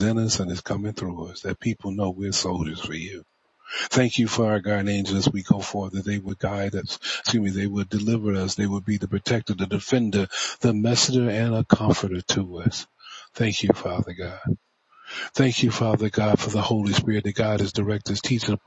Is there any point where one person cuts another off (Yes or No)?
No